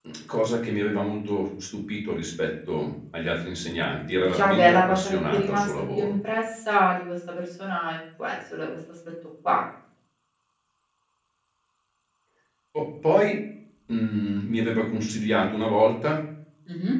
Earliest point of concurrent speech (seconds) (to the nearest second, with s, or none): 4 s